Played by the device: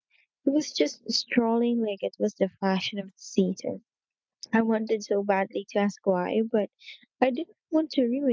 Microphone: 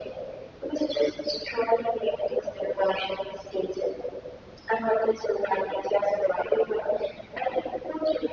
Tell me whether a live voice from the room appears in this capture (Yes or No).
No